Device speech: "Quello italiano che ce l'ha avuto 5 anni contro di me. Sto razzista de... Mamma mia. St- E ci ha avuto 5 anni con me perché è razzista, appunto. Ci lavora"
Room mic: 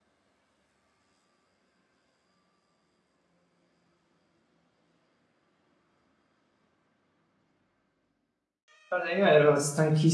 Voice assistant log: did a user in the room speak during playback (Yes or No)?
Yes